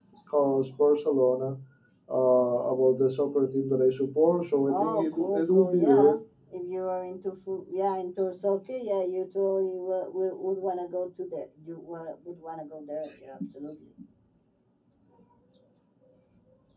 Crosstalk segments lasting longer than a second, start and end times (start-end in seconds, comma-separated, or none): 4.7-6.2